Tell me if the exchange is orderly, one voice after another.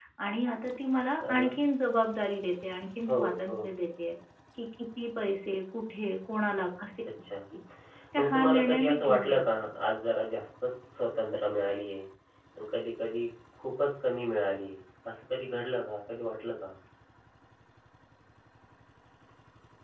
No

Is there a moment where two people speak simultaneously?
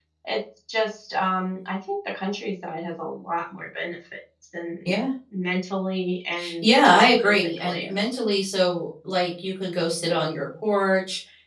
Yes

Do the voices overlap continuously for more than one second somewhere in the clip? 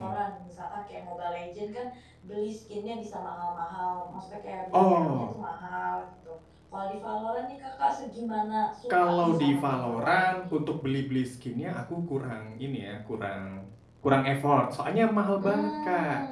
Yes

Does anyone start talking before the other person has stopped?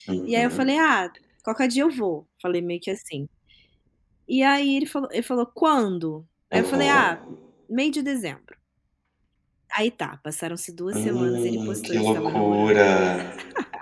Yes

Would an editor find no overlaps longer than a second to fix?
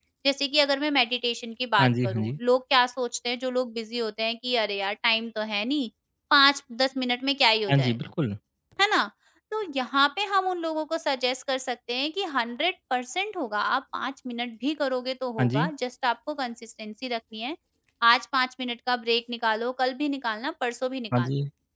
Yes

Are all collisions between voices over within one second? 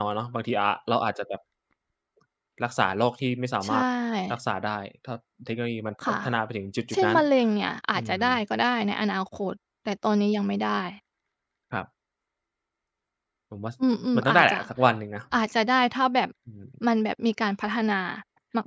Yes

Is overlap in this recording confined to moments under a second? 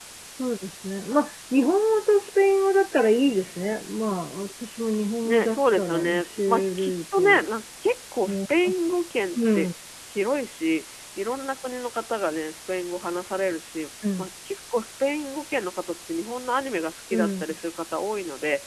No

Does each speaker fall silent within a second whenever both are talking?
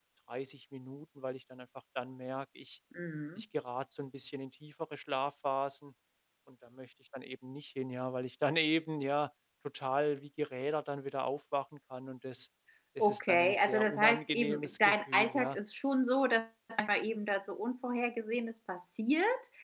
No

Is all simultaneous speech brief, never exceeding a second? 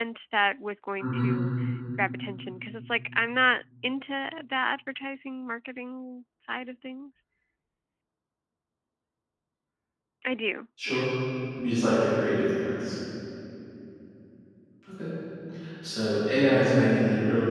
Yes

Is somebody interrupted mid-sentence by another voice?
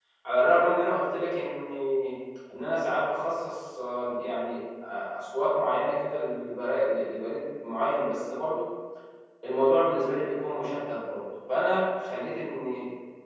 No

